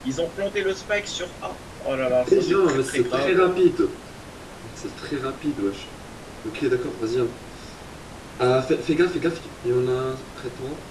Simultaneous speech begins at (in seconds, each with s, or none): 2.0 s